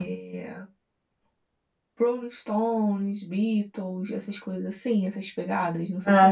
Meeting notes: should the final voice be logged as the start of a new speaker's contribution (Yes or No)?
Yes